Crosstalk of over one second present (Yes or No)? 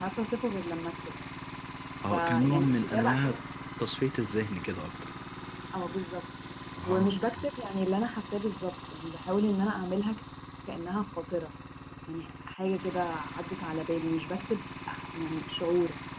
Yes